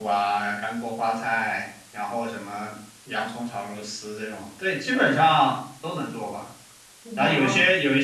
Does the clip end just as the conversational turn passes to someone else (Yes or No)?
No